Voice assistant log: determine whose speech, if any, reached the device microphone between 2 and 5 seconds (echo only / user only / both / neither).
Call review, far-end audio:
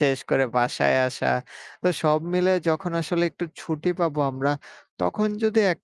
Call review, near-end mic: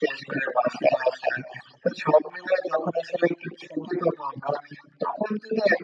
echo only